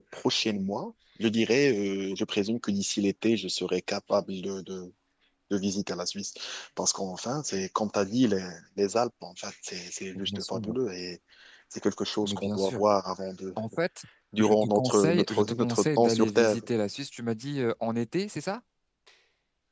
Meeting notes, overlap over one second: present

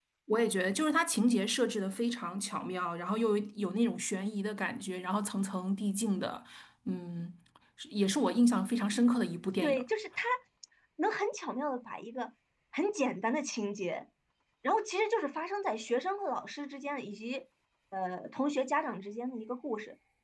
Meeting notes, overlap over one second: none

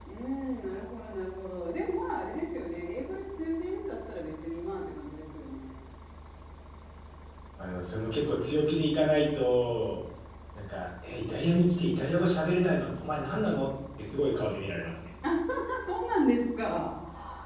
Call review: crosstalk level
none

